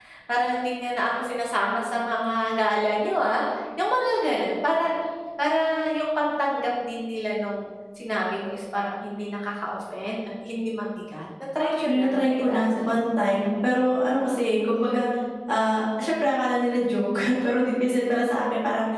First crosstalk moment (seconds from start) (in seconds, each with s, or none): 11.6 s